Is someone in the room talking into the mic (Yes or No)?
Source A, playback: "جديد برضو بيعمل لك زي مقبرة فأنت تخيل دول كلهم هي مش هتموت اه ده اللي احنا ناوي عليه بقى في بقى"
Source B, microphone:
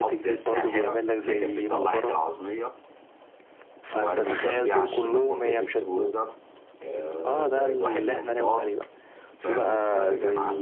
Yes